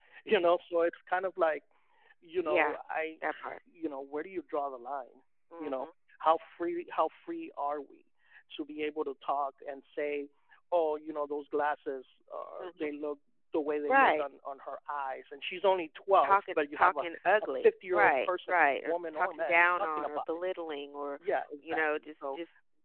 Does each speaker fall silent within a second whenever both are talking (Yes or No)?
No